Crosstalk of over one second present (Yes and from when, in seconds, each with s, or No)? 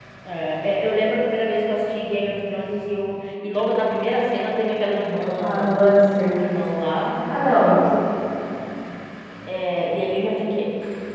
No